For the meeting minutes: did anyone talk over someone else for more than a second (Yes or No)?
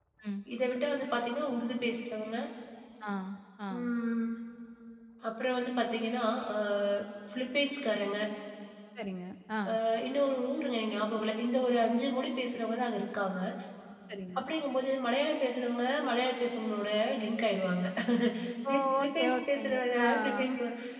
Yes